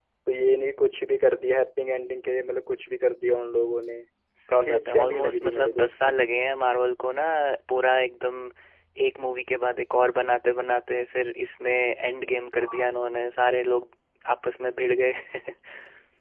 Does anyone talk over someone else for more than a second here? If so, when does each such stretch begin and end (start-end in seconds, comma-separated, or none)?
4.5-6.1